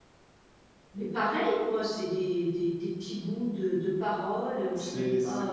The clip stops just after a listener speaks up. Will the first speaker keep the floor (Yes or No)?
No